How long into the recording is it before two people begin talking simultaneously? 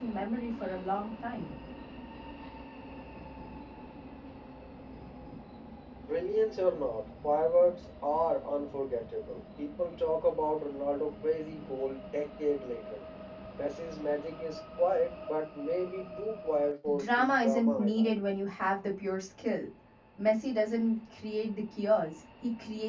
17 s

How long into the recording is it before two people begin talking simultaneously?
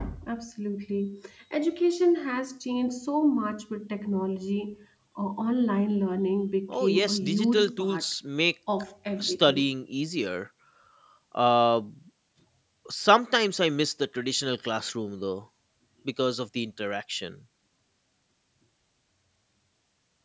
7 s

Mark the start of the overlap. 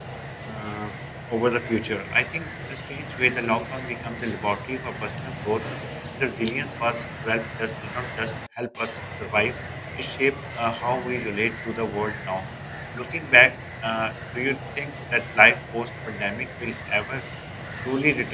none

